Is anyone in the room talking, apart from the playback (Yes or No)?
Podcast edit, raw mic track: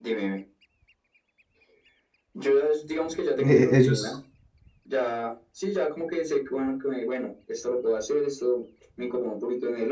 Yes